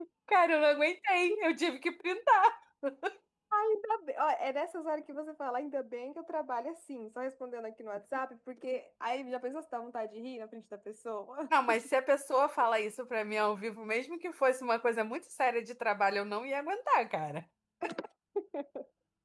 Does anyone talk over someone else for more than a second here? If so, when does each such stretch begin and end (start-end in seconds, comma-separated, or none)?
none